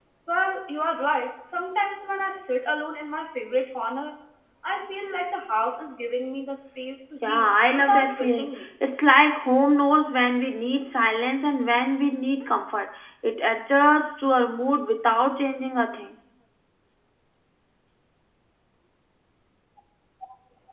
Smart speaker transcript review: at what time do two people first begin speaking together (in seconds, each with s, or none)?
7.2 s